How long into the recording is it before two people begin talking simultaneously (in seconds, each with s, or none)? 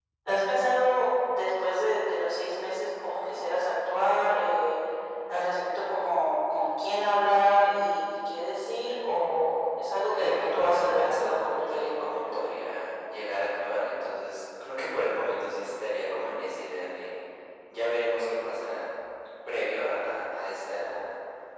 10.1 s